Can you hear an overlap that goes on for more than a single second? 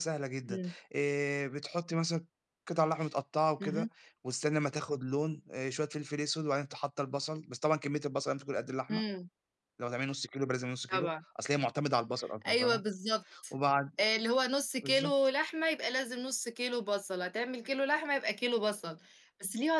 No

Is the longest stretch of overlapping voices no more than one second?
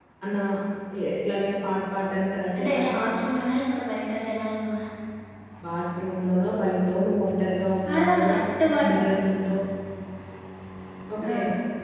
Yes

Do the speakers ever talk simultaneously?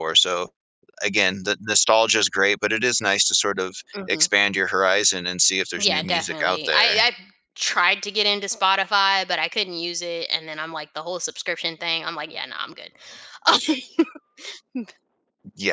Yes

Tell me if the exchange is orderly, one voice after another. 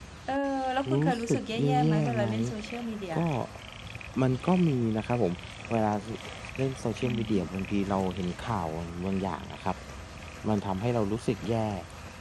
No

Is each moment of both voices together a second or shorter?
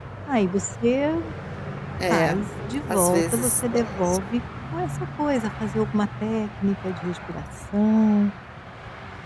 No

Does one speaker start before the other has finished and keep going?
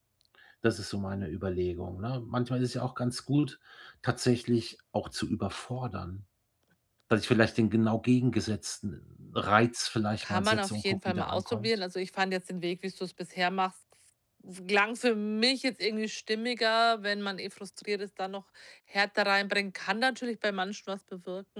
Yes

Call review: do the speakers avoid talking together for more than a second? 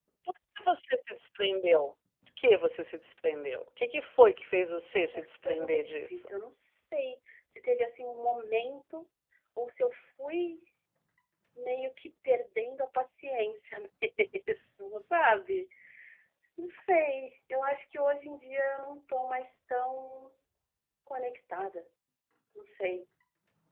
No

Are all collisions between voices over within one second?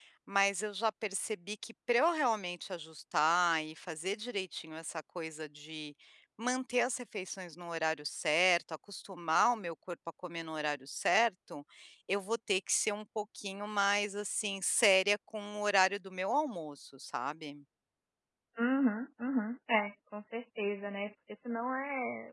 Yes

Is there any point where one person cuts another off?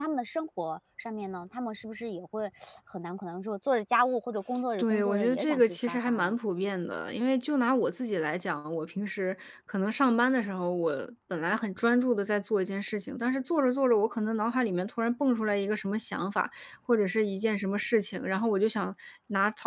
Yes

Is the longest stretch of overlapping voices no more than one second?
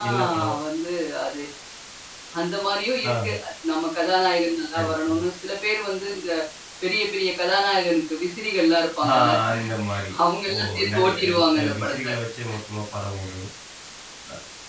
No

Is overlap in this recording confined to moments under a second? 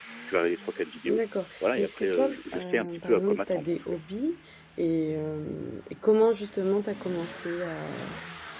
No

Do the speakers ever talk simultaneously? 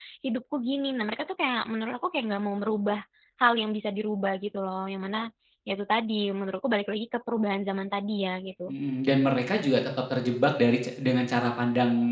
No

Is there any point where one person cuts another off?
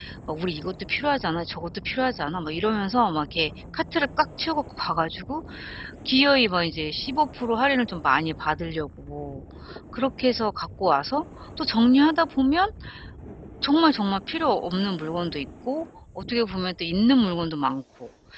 No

